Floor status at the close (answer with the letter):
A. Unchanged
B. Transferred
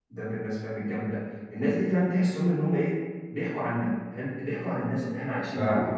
B